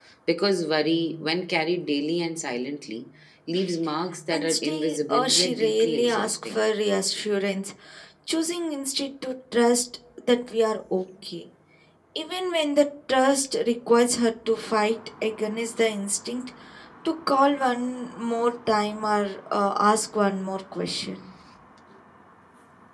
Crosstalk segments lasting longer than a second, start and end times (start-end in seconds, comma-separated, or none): 4.3-6.6